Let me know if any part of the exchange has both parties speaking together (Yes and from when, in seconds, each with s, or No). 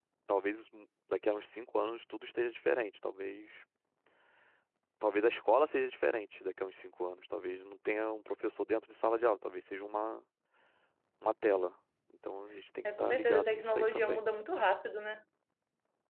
Yes, from 12.8 s